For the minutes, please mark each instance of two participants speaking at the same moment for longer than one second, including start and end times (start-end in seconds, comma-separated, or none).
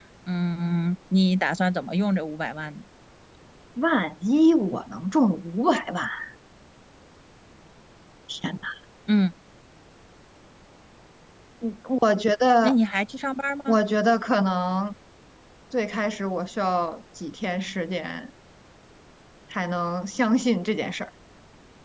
none